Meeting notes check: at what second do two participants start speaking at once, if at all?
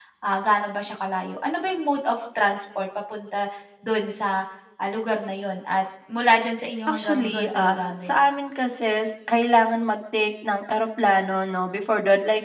6.9 s

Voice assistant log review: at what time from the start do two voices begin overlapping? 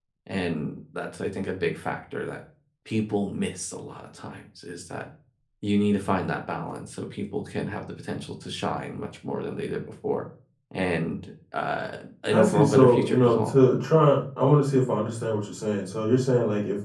12.3 s

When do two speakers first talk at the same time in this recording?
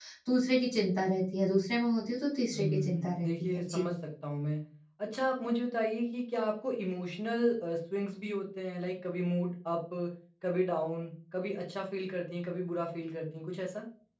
2.5 s

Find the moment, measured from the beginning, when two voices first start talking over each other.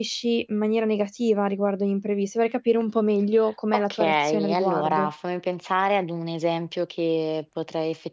3.7 s

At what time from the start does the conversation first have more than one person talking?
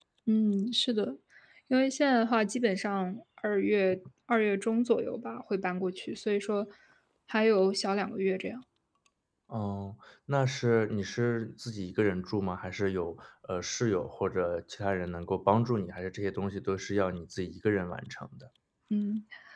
none

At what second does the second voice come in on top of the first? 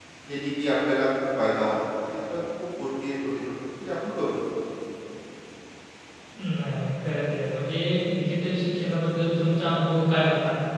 none

